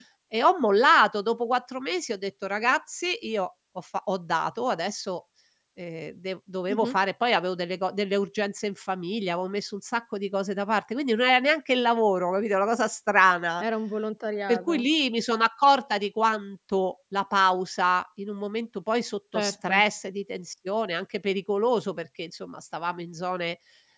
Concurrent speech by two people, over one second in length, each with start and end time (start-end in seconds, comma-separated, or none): none